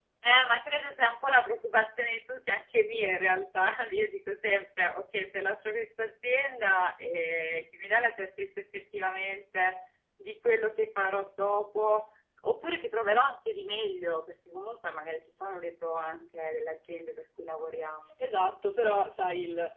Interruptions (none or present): none